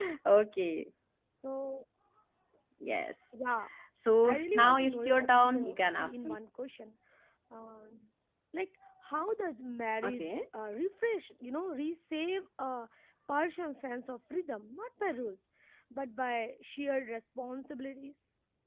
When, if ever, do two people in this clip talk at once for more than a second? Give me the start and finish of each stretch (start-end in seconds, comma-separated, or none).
4.2-6.4